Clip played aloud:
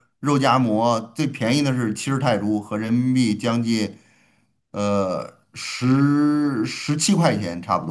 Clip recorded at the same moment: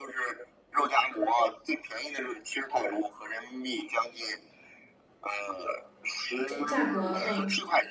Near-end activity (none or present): present